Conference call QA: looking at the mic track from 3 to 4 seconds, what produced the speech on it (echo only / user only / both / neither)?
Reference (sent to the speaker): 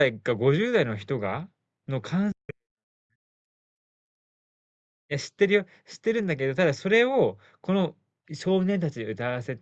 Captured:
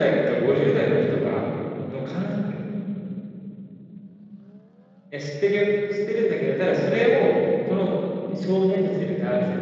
neither